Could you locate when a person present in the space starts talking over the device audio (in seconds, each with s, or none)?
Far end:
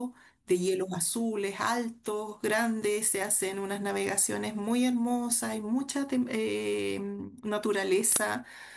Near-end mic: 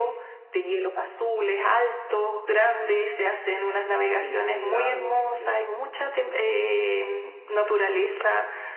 4.0 s